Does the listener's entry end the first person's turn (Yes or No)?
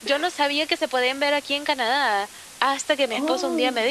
No